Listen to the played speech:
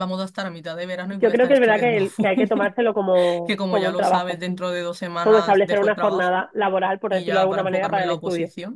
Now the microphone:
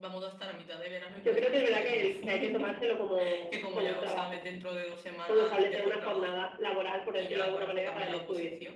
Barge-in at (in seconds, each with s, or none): none